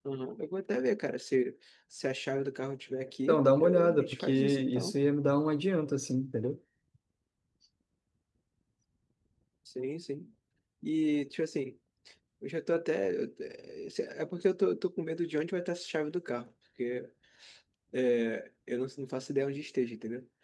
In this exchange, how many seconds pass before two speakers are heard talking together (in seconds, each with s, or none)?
3.3 s